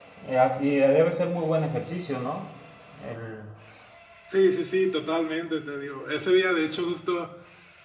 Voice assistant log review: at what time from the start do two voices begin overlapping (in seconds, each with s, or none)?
none